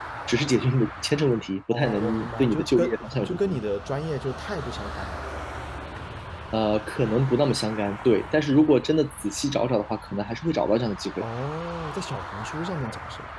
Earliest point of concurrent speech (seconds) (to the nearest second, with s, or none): 2 s